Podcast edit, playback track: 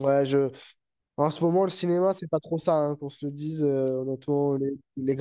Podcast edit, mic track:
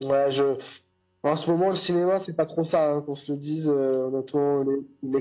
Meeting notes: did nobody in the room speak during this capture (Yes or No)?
Yes